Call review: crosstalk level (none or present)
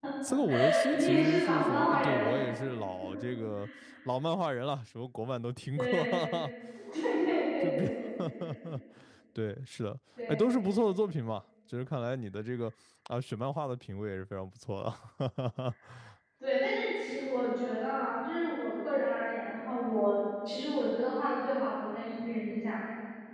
present